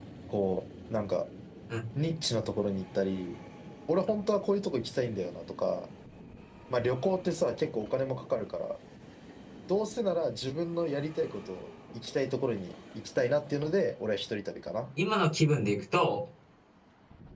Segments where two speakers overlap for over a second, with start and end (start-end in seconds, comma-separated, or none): none